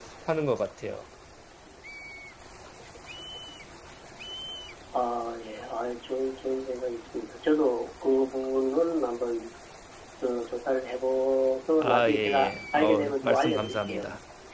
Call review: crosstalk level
present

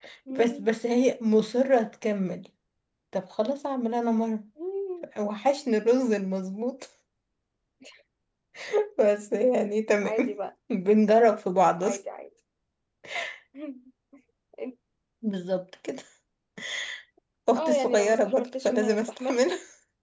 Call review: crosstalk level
present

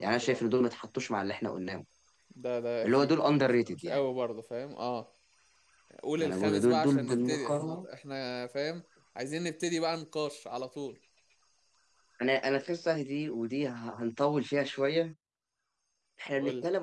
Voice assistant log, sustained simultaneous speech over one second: present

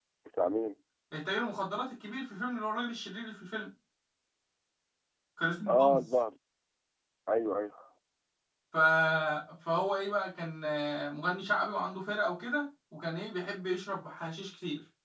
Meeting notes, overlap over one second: none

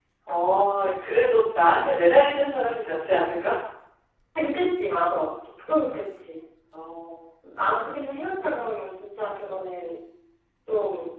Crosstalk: none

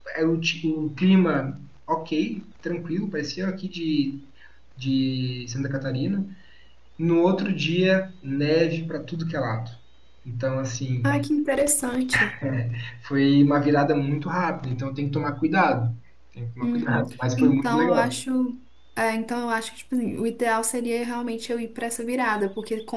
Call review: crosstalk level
present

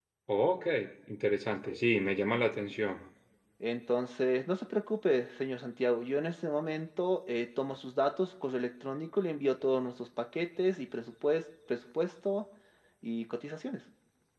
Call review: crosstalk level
none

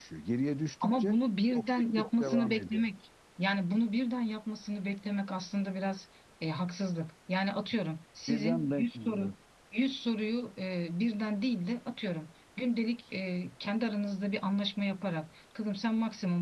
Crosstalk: present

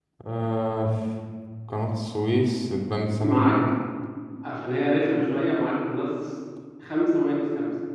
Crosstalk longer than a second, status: none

